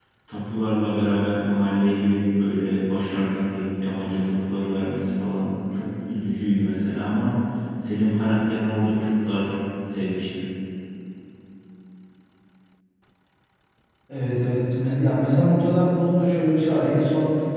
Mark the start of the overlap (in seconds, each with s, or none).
none